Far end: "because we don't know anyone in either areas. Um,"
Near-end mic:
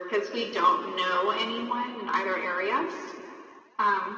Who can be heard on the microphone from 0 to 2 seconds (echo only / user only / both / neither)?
echo only